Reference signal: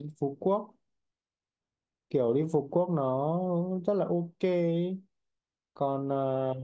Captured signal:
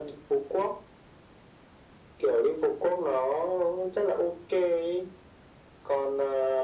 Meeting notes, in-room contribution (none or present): none